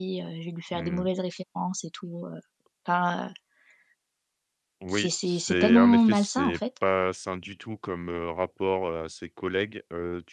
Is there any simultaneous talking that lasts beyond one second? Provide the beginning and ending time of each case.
4.9-6.6

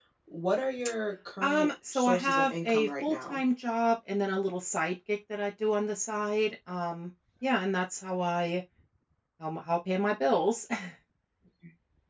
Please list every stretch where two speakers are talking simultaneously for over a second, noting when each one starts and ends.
1.4-3.4

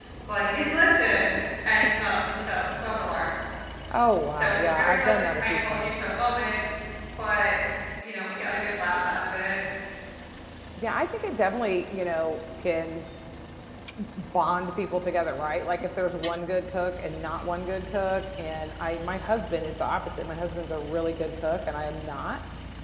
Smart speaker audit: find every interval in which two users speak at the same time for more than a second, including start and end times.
4.3-5.9

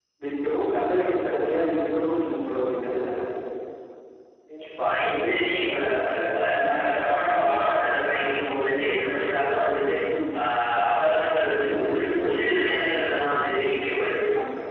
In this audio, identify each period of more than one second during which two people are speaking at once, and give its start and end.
none

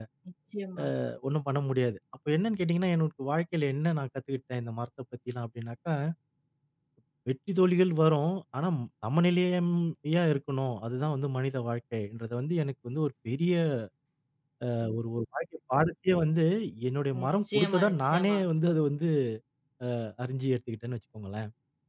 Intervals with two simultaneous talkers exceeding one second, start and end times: 17.2-18.4

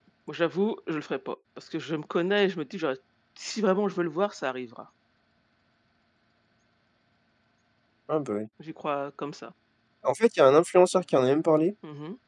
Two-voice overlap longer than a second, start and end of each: none

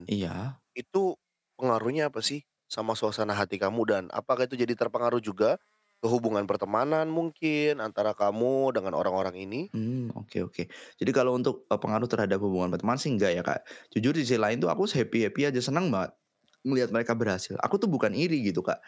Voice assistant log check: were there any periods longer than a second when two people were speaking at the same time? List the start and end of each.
none

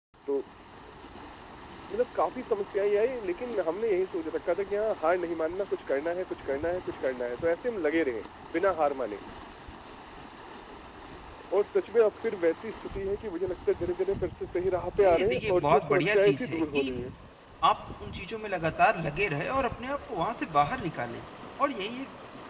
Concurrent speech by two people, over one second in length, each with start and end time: 15.0-16.9

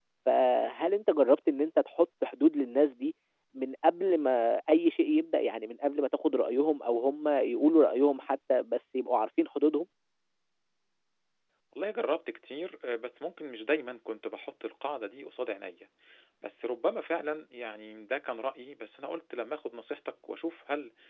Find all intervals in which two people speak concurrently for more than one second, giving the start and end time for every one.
none

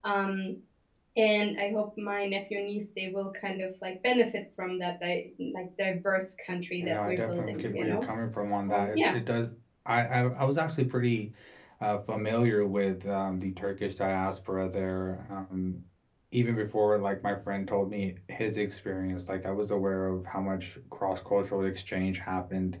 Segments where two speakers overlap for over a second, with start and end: 6.8-8.0

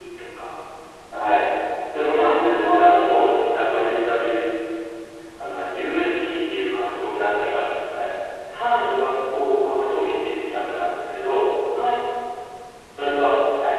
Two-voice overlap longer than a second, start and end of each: 2.1-3.8

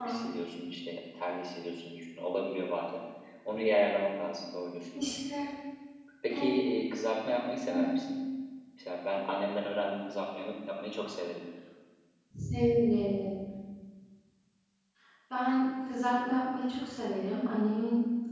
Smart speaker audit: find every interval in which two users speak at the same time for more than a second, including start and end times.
none

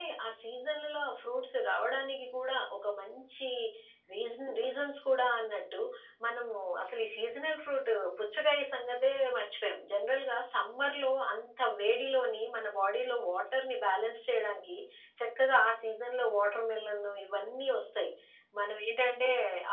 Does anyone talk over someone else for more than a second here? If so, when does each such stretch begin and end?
none

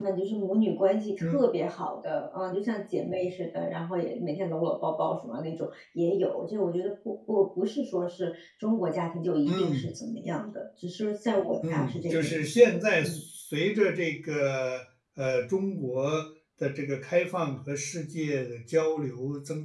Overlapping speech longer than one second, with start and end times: 11.7-13.2

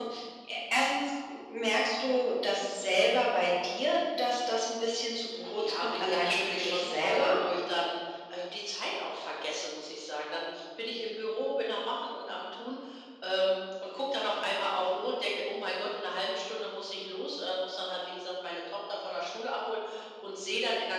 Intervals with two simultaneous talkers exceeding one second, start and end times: 5.4-7.3

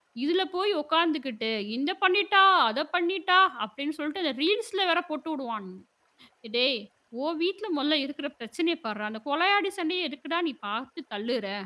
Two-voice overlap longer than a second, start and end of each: none

